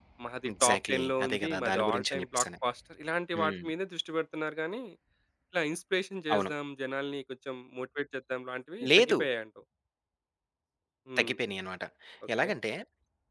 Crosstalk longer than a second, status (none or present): present